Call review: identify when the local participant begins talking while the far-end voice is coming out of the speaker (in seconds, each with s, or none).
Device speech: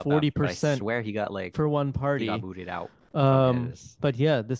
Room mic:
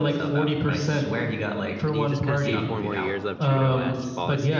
1.9 s